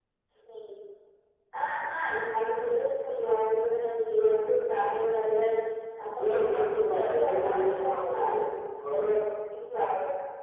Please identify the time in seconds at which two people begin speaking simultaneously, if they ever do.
6 s

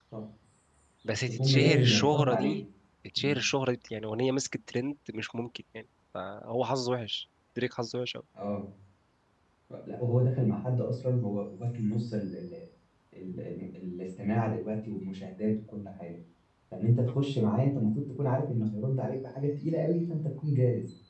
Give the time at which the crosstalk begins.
1 s

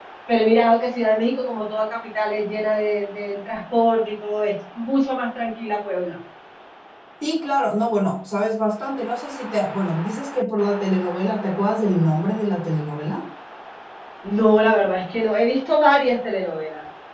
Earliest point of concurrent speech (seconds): none

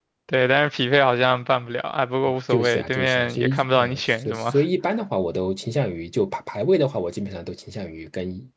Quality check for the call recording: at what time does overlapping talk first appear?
3 s

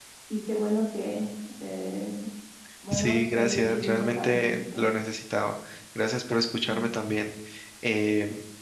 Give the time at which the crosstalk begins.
3 s

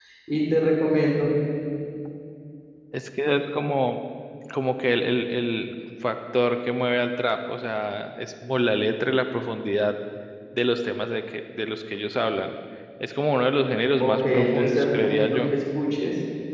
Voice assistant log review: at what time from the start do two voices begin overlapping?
14 s

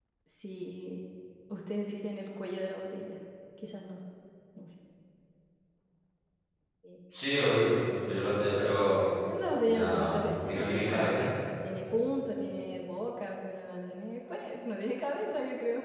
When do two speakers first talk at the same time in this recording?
10 s

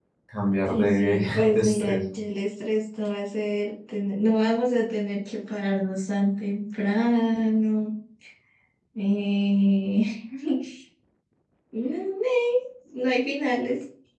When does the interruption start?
1 s

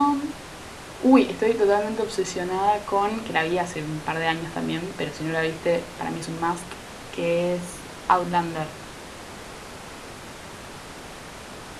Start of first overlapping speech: none

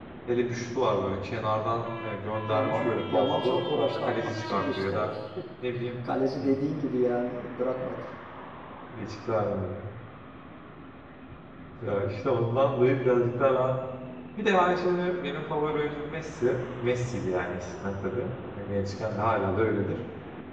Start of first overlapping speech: 2 s

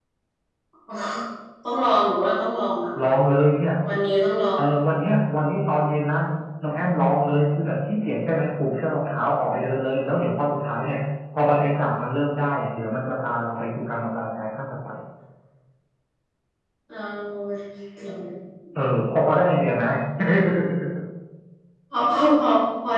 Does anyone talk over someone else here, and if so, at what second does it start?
none

